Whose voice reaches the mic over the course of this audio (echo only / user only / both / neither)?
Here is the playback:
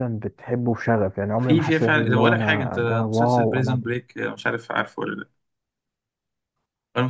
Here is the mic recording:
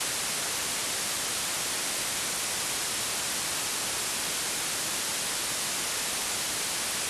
neither